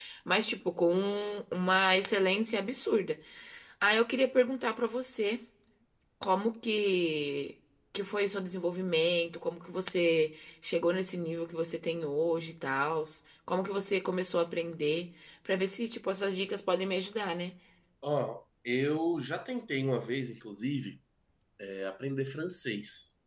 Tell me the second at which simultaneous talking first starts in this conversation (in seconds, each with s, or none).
none